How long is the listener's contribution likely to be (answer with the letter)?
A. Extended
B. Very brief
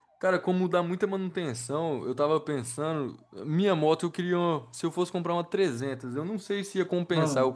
B